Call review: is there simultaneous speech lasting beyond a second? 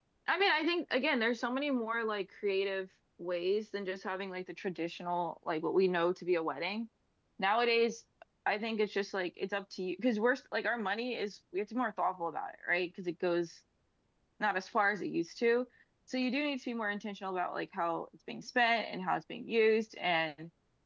No

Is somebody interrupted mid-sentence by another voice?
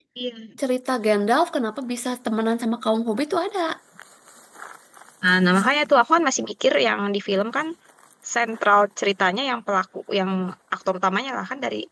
No

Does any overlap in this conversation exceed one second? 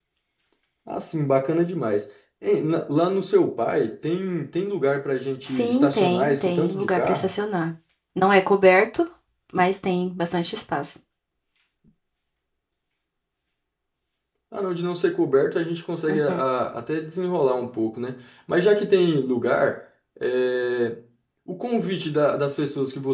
Yes, from 5.4 s

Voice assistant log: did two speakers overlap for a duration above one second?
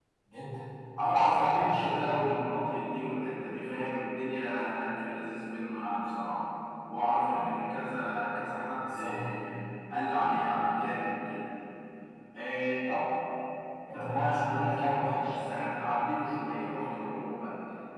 Yes, from 1.0 s

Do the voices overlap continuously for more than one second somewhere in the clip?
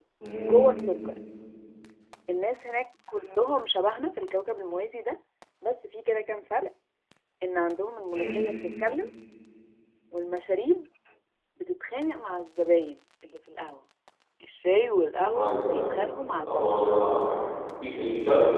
No

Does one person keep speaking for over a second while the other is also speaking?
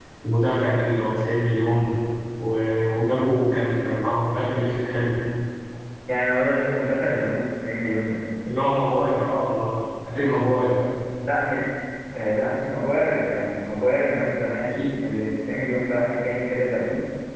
No

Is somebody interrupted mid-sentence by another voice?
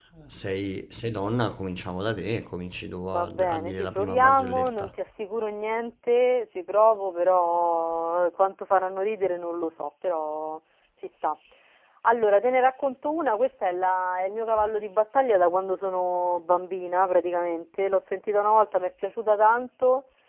Yes, from 3.0 s

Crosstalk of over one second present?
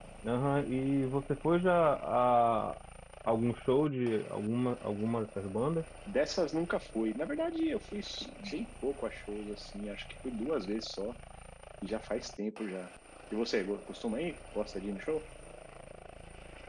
No

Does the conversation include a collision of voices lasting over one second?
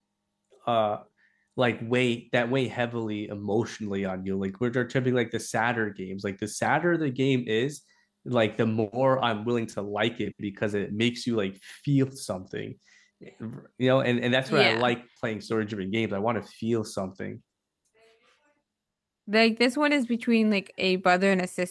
No

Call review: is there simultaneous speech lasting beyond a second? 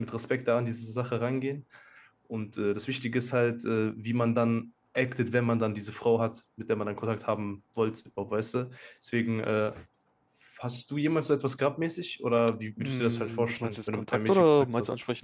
Yes, from 12.8 s

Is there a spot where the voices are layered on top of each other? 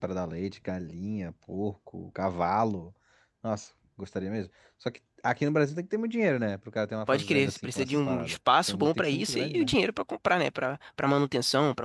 Yes, from 7.1 s

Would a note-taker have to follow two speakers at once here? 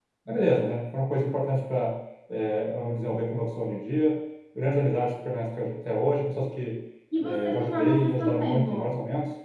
Yes, from 7.1 s

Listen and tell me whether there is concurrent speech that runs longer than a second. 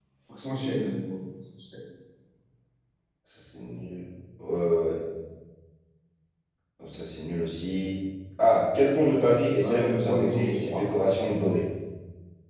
Yes, from 9.6 s

